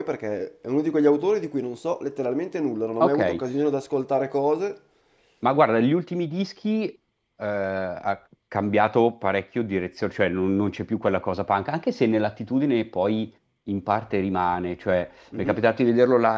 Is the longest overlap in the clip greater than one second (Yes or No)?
No